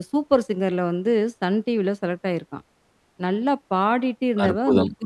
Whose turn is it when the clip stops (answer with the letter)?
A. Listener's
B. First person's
B